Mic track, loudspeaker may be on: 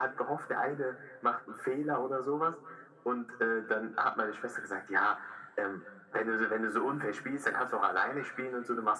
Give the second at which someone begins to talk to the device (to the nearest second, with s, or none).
none